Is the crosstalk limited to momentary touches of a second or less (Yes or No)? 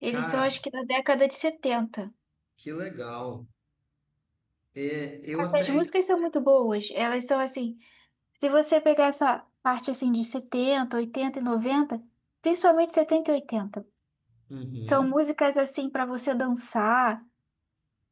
Yes